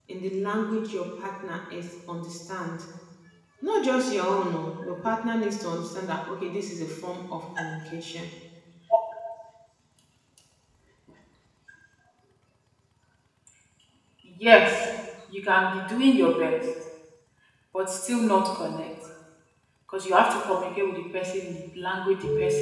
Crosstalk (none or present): none